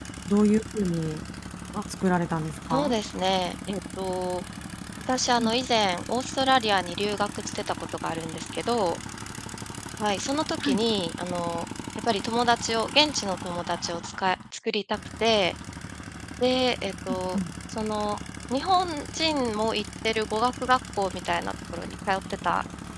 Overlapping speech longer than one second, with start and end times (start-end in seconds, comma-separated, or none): none